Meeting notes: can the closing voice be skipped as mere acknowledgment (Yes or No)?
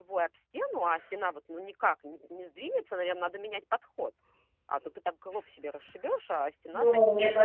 No